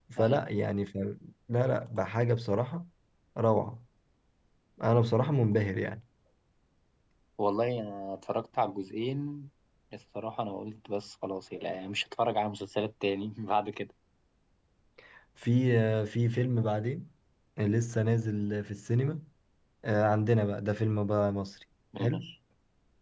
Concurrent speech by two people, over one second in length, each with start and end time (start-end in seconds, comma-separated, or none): none